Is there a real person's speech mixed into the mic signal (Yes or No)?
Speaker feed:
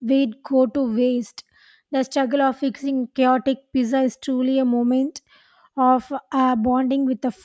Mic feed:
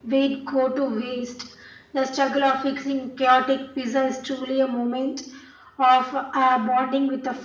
No